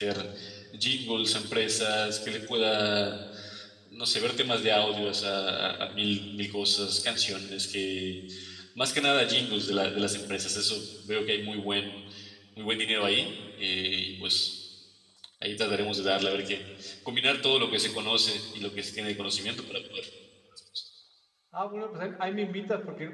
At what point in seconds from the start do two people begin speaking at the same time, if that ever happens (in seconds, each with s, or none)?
none